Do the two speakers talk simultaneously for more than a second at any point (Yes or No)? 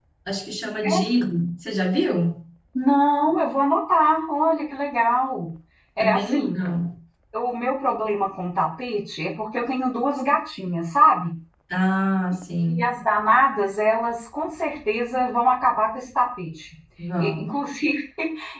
No